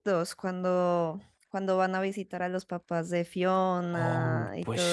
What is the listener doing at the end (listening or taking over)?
taking over